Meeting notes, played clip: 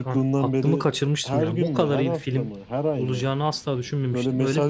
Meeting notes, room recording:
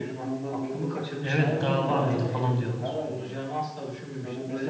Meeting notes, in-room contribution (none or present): present